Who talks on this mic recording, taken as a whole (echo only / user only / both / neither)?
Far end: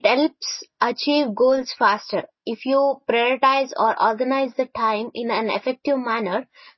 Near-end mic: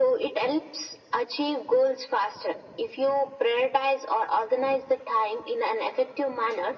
echo only